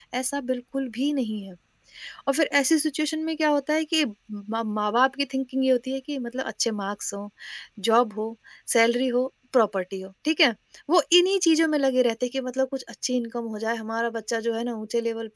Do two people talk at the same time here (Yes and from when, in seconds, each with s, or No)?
No